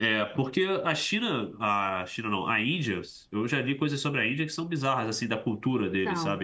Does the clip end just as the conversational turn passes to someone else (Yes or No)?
No